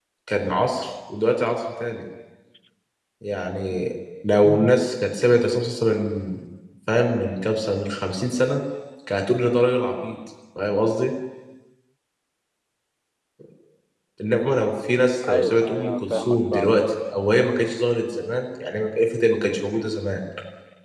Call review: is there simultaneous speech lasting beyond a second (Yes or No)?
Yes